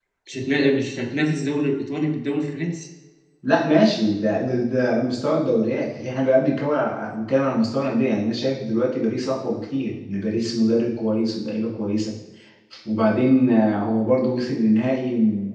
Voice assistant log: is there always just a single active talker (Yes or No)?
Yes